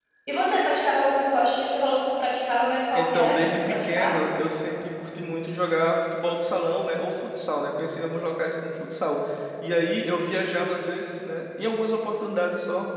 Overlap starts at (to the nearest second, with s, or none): 3 s